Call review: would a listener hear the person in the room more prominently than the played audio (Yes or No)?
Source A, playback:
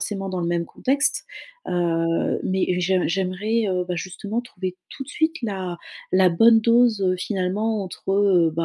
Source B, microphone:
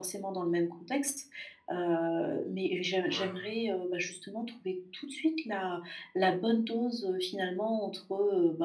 No